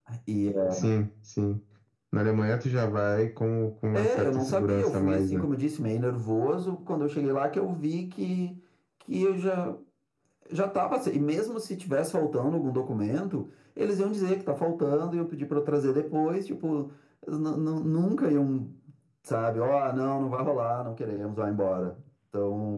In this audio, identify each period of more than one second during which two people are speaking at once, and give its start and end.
3.9-5.4

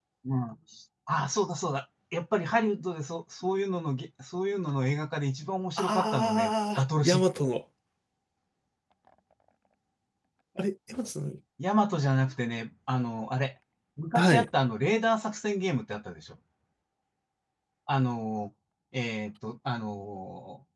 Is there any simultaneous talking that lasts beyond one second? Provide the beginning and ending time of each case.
5.8-7.2

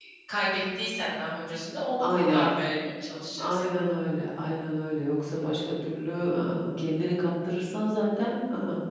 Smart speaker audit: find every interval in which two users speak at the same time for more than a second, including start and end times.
none

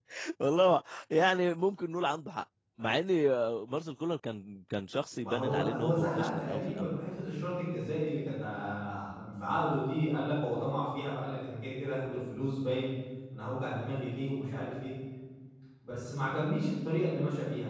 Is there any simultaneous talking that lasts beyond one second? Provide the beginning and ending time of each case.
5.2-6.9

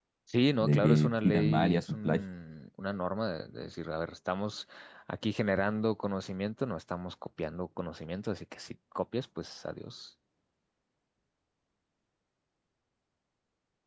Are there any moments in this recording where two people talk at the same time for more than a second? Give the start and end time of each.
0.6-2.2

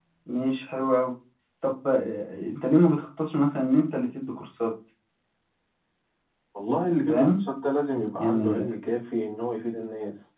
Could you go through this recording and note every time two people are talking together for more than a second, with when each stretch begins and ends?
none

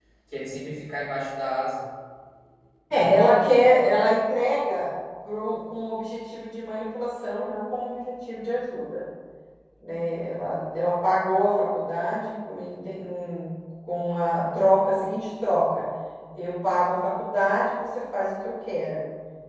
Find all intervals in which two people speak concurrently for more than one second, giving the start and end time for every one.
none

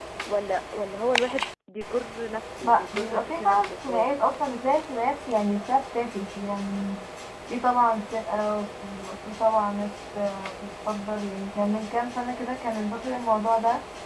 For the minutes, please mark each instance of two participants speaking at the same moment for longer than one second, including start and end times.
2.6-4.3

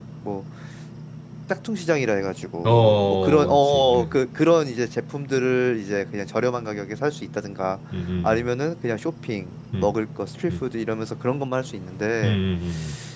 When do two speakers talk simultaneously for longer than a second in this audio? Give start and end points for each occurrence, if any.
2.6-4.2

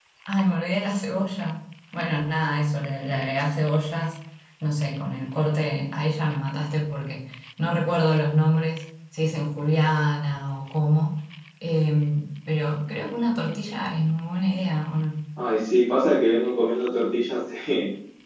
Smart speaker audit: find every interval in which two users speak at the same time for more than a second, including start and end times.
none

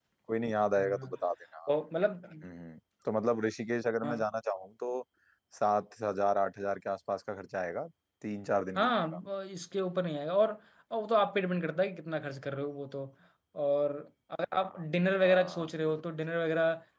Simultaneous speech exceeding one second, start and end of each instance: none

